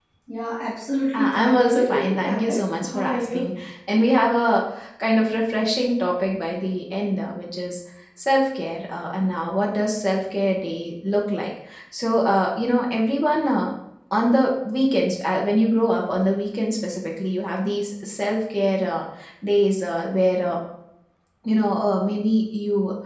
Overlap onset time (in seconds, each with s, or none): 1.1 s